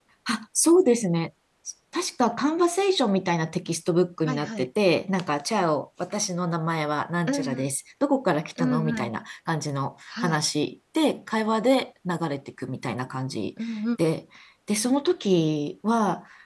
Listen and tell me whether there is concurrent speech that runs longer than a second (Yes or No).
No